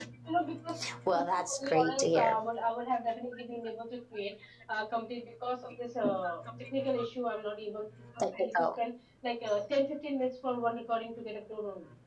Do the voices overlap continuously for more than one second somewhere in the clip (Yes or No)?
Yes